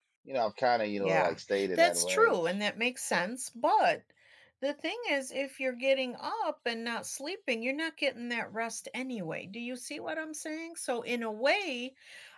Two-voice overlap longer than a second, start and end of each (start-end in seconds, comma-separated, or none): 1.0-2.4